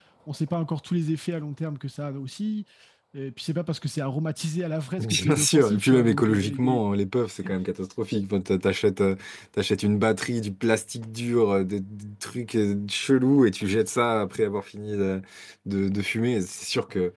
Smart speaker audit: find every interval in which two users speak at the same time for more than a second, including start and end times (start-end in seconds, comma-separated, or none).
5.0-6.8